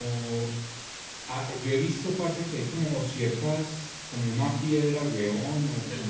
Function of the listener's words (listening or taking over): listening